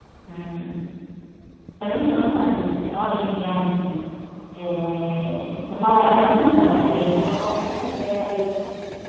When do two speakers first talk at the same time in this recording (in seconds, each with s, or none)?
5.8 s